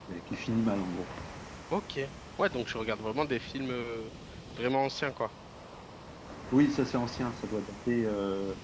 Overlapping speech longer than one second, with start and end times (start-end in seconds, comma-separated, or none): none